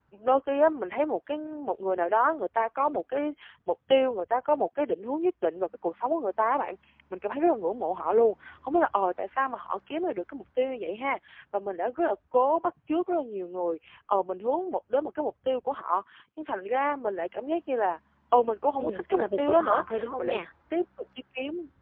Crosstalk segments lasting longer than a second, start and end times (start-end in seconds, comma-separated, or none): 18.8-20.4